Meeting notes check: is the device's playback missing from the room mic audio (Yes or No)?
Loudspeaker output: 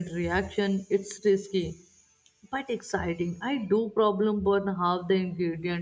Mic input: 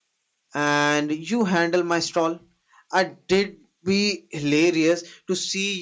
Yes